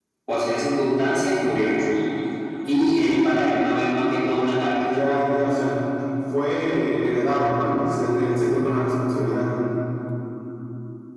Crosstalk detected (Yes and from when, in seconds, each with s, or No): No